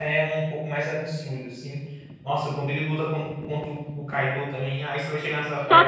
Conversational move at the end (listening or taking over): taking over